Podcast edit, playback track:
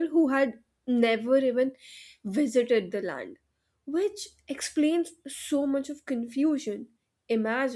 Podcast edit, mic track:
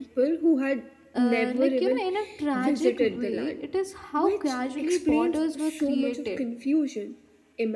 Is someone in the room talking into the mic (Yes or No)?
Yes